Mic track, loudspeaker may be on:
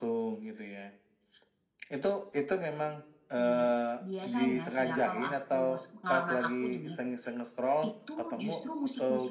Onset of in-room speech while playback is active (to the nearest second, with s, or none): none